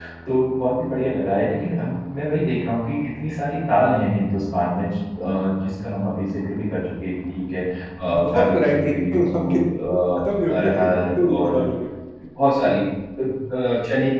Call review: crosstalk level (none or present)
present